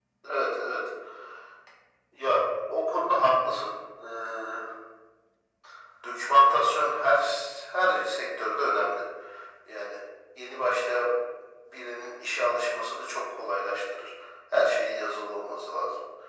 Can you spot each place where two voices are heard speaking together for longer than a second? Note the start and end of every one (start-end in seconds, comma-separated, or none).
none